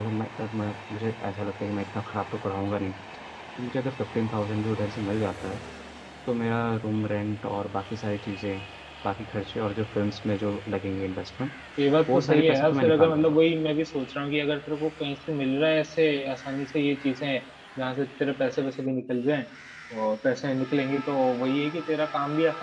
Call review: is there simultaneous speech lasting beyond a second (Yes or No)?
Yes